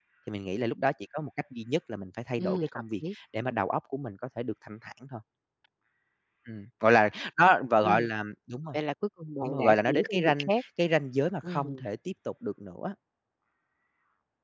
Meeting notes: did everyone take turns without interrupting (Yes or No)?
No